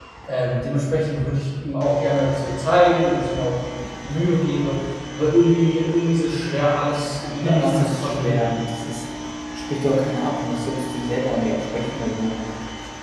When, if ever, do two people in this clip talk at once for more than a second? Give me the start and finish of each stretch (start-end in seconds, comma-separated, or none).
7.2-8.6